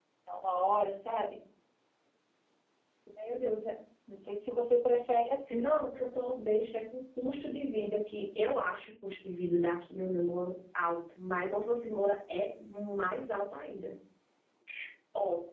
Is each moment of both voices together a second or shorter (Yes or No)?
Yes